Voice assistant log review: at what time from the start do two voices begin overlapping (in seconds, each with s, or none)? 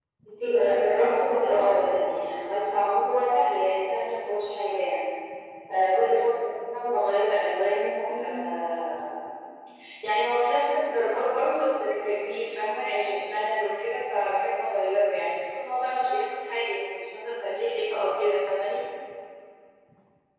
0.5 s